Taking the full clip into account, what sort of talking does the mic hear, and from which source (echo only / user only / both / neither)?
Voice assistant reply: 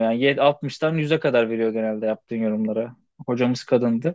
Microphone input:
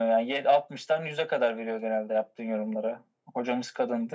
echo only